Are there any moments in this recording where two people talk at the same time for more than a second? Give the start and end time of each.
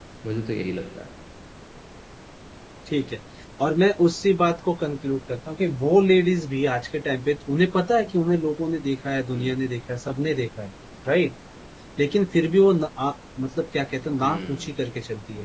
none

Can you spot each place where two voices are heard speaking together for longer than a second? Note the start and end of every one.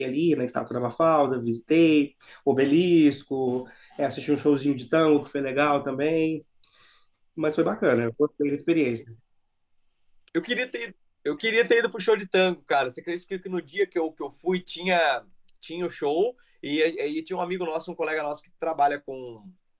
none

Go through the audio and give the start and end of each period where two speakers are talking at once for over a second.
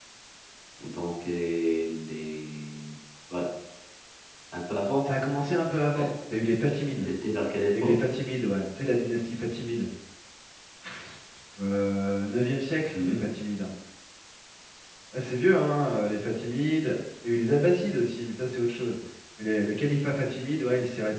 none

